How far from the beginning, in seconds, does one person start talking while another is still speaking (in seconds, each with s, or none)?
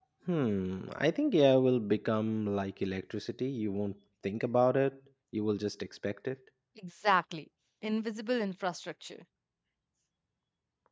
none